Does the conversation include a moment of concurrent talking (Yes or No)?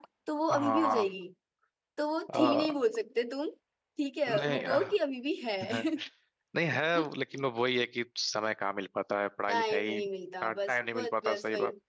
Yes